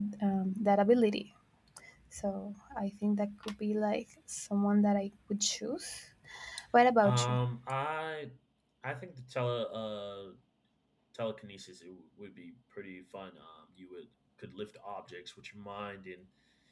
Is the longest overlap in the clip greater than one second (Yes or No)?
No